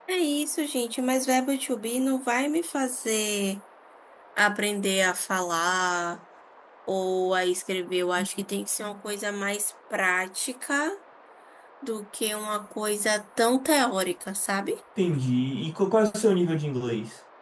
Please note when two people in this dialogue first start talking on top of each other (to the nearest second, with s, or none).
none